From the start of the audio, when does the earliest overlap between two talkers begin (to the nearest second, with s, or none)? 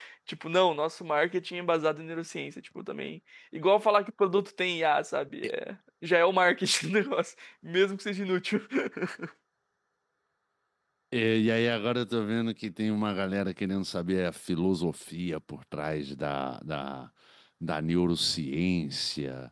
none